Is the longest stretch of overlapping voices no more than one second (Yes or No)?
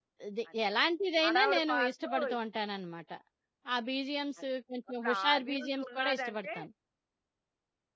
No